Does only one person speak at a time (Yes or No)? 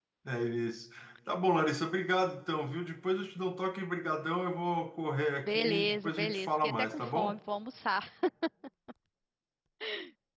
No